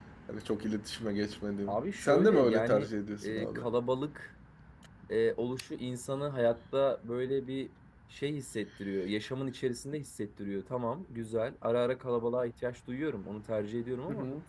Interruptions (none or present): present